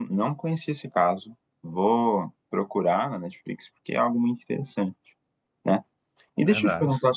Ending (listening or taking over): listening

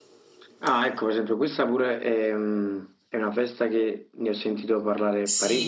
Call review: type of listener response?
taking over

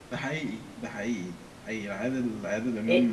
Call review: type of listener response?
taking over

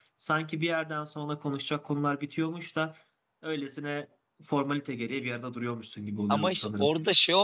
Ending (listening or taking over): taking over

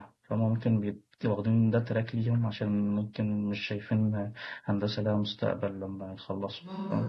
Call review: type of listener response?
taking over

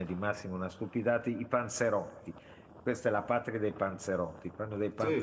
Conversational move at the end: listening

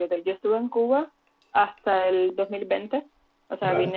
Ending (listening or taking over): listening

